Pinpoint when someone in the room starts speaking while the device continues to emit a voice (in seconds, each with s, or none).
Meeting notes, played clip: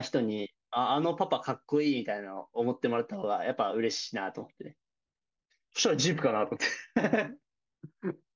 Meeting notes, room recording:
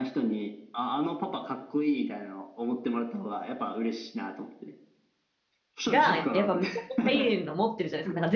5.9 s